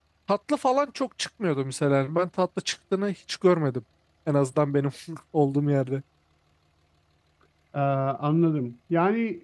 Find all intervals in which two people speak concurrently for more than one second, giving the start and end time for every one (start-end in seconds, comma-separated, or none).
none